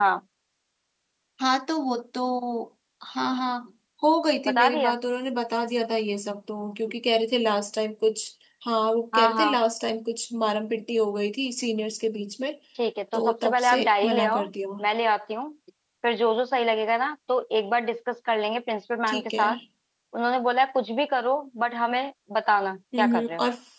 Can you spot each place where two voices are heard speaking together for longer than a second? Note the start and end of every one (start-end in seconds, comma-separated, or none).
13.1-14.4